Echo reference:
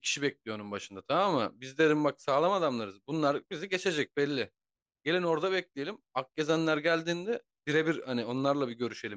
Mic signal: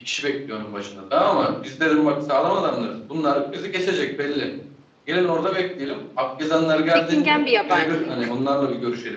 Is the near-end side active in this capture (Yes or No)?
Yes